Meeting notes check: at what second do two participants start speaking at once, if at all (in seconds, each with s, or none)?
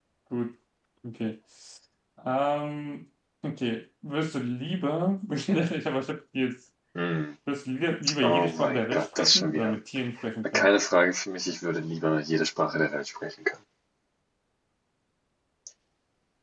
8.2 s